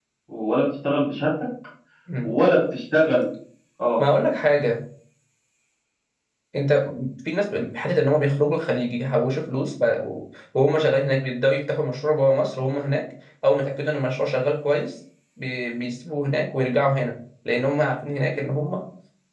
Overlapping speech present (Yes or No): No